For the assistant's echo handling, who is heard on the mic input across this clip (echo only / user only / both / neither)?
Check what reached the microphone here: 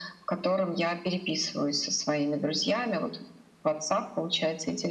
echo only